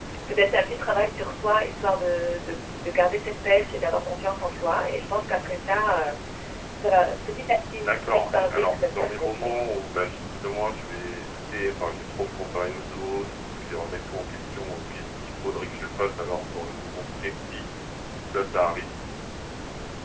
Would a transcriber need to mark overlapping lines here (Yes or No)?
Yes